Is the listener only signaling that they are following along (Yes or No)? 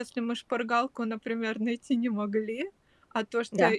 Yes